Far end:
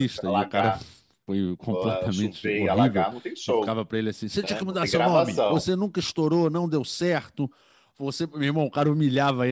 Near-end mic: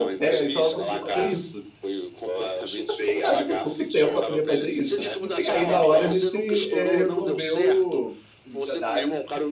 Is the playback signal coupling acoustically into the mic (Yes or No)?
Yes